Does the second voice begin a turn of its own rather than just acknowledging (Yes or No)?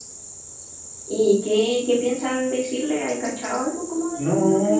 Yes